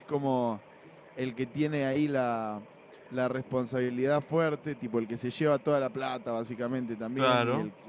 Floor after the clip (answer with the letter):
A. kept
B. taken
A